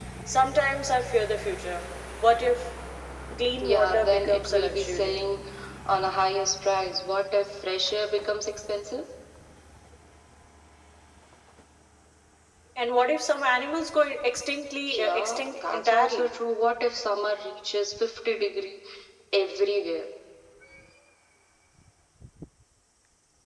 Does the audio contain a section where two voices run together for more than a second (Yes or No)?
Yes